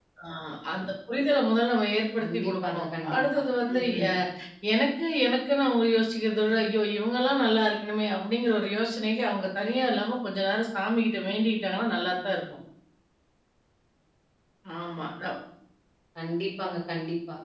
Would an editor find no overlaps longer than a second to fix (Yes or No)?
No